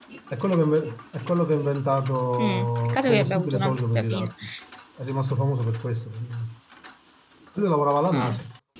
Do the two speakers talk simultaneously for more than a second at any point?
Yes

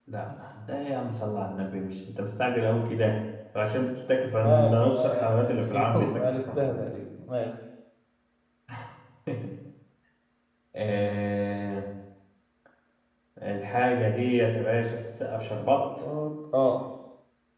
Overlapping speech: Yes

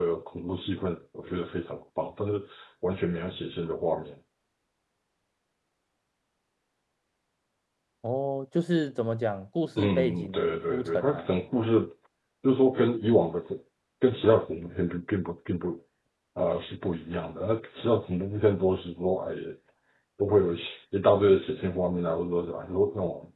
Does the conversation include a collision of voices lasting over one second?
Yes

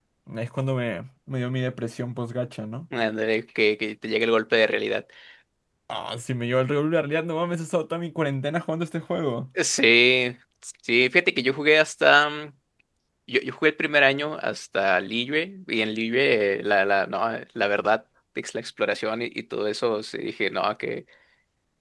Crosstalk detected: No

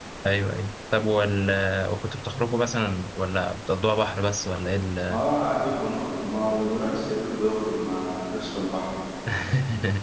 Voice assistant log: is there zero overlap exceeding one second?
Yes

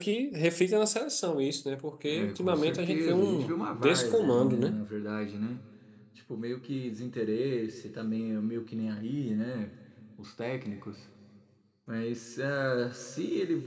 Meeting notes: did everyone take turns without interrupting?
No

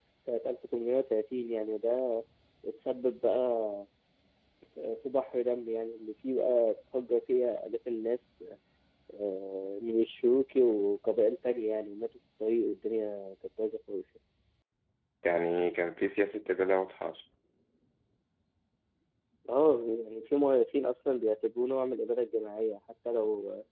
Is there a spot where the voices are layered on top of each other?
No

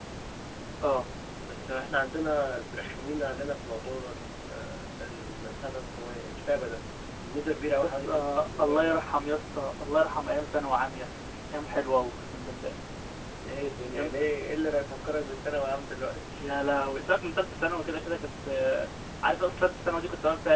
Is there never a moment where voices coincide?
No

